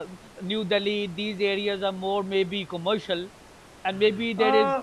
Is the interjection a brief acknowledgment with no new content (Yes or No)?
Yes